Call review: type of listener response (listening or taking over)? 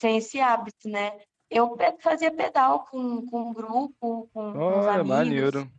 taking over